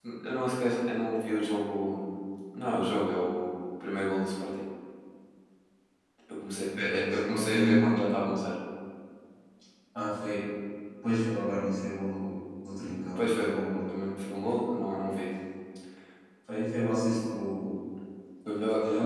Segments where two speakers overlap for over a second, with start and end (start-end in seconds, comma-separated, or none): 6.7-7.9